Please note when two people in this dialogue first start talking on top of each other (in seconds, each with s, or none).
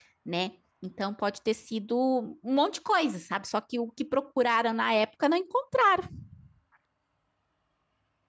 none